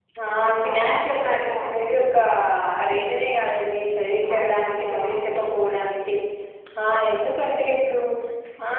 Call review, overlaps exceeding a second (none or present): present